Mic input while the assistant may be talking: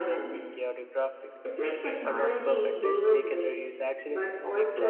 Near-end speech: present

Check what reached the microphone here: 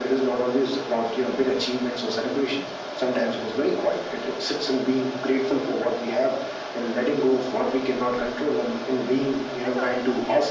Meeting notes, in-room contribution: present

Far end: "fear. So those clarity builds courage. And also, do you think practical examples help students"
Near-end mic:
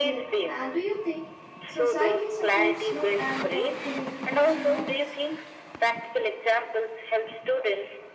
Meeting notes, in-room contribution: present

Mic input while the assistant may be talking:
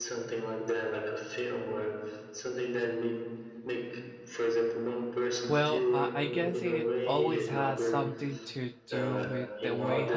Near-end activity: present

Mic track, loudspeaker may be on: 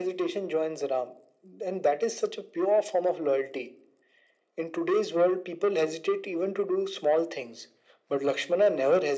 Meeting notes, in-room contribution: none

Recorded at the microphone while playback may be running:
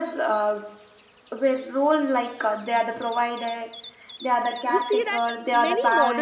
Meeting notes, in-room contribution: present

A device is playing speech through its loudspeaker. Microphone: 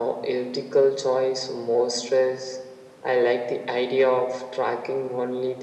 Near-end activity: none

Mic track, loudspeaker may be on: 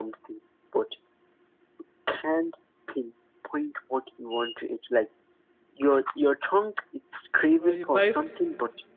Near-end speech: present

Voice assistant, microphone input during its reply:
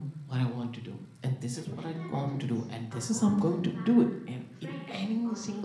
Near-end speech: present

